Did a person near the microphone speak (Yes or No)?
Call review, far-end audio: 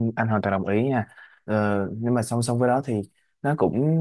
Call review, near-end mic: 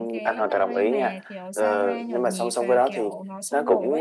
Yes